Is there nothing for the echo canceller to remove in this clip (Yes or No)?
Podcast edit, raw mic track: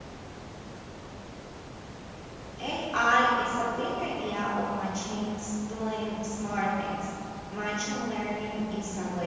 Yes